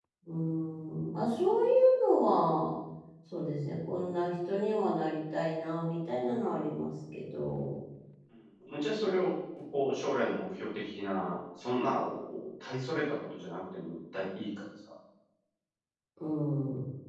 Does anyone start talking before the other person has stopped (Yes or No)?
No